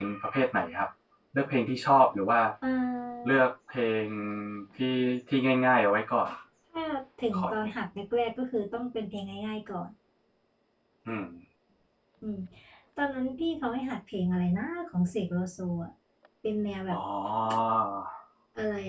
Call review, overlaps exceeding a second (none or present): none